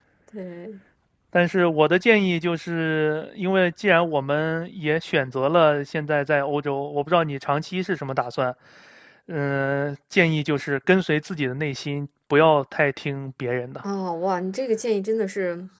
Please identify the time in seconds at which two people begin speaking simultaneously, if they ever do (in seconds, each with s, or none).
none